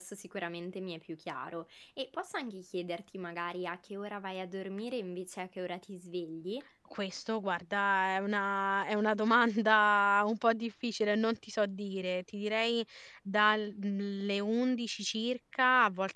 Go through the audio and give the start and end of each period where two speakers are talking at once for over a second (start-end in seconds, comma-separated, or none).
none